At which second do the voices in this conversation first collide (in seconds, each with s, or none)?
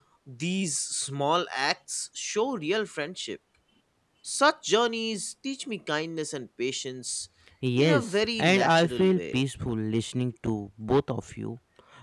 7.8 s